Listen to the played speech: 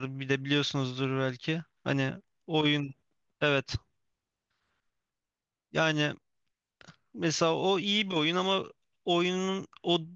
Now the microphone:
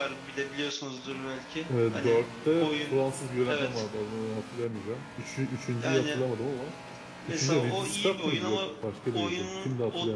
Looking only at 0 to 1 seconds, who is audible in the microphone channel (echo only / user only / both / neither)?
echo only